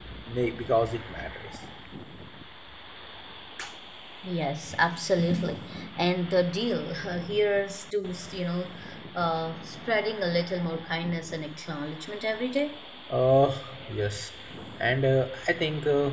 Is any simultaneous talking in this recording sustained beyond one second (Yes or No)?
No